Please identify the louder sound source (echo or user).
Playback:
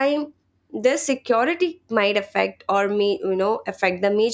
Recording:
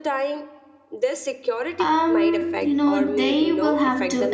user